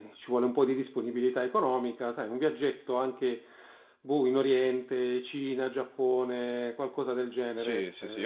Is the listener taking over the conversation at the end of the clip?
Yes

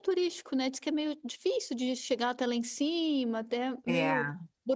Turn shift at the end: No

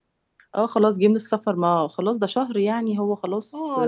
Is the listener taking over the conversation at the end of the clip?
Yes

